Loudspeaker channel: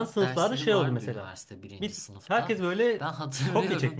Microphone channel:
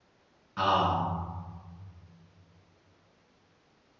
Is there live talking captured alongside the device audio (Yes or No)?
Yes